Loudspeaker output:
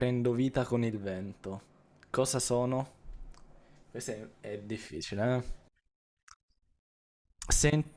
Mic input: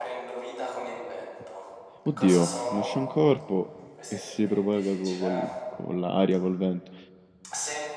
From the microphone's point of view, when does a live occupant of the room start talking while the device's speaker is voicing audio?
2.0 s

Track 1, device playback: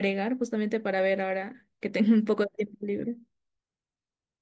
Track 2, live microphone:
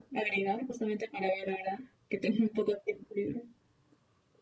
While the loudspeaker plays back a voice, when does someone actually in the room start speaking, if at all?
none

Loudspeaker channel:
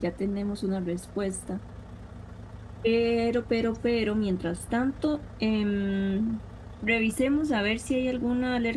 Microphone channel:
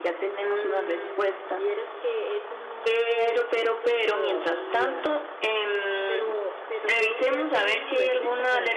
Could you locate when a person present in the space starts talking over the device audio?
0.4 s

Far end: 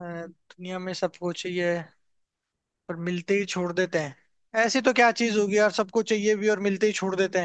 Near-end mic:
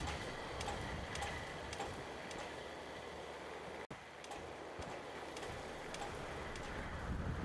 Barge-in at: none

